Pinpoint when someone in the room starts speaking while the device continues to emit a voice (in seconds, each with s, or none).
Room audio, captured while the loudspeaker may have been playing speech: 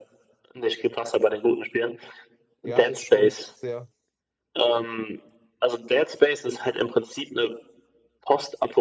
2.6 s